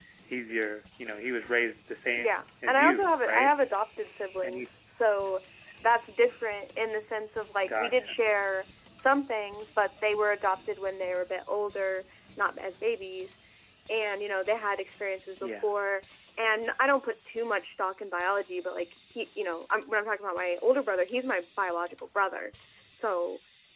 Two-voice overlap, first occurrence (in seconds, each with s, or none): 2.2 s